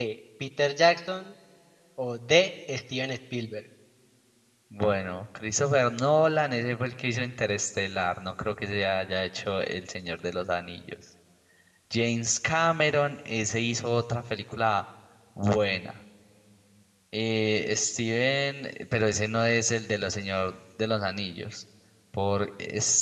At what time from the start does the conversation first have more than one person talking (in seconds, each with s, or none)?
none